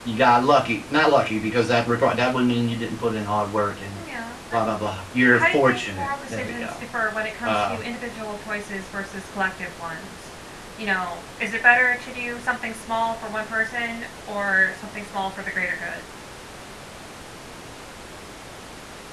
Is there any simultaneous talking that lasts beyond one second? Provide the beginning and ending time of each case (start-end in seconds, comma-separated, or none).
5.3-6.7